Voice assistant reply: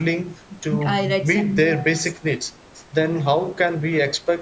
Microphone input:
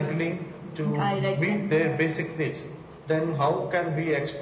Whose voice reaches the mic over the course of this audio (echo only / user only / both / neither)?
echo only